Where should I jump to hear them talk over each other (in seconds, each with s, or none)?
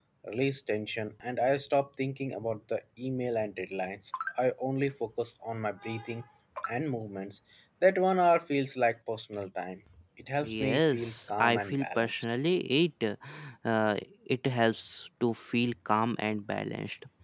10.4 s